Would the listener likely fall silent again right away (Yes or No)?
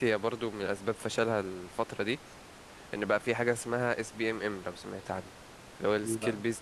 Yes